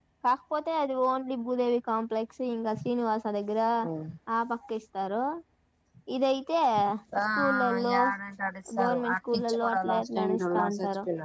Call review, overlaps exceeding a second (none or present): present